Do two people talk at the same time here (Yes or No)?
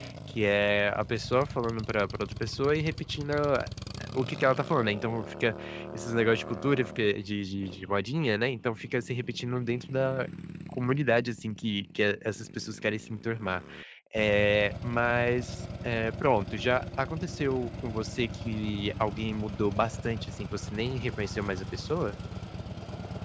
No